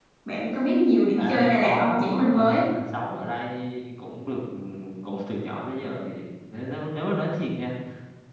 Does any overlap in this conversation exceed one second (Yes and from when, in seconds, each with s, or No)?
Yes, from 1.2 s